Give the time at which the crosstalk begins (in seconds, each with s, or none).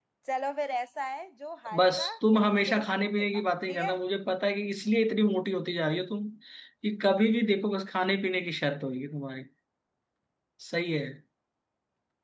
1.6 s